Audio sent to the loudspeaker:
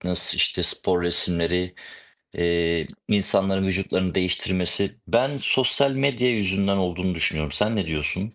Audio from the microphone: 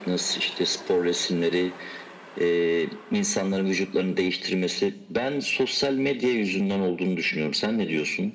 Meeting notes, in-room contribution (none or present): none